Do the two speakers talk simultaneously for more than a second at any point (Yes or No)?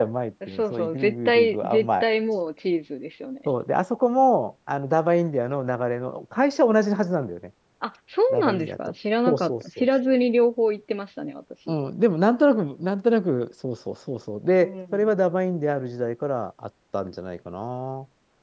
Yes